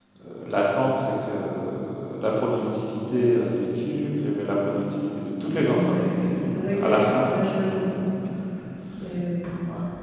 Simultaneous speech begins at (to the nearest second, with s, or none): 6 s